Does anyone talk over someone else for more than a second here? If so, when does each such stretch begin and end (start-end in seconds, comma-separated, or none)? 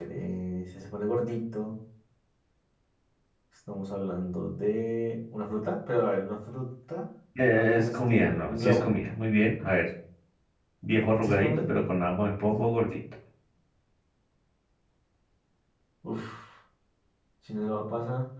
7.5-8.9